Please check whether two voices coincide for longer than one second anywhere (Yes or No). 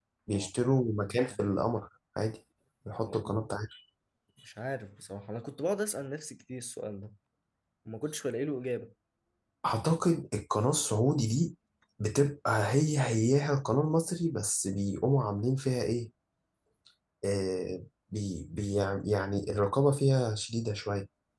Yes